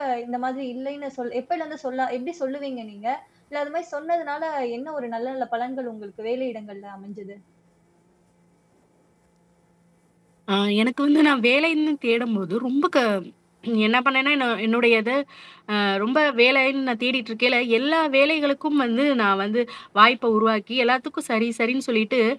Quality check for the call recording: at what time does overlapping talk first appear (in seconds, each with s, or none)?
none